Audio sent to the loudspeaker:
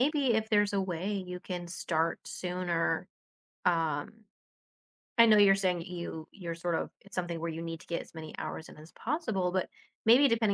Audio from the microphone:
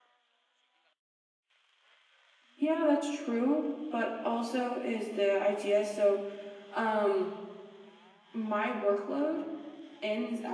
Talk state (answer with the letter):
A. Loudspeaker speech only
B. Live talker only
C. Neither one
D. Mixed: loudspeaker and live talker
B